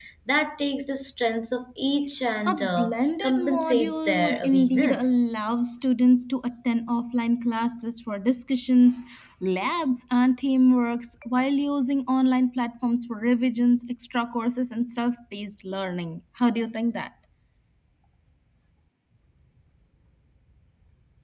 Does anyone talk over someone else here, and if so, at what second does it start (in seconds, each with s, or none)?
2.5 s